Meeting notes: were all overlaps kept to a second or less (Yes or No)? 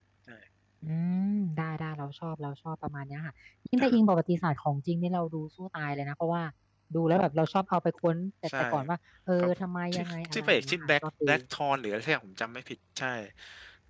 No